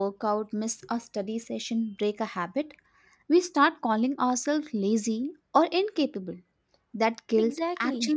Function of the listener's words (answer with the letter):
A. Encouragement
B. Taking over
A